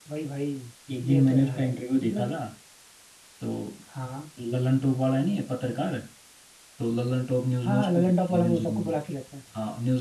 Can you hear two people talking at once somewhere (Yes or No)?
Yes